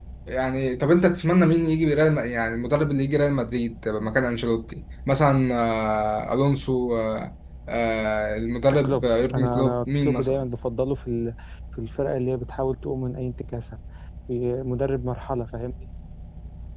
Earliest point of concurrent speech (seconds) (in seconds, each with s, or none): 8.8 s